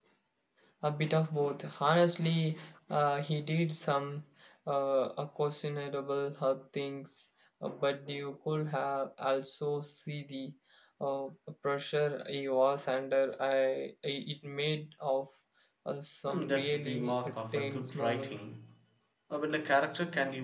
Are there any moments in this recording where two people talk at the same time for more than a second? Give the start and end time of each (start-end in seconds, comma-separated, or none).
16.3-18.4